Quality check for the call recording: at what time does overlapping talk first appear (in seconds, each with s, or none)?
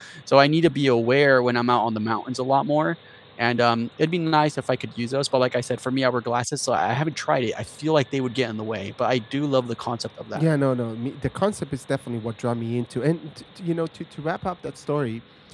none